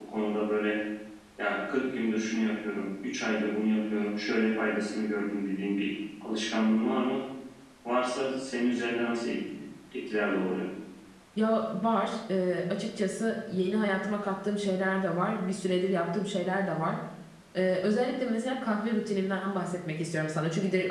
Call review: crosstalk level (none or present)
none